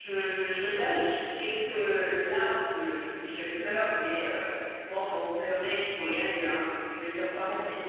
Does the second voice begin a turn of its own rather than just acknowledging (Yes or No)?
No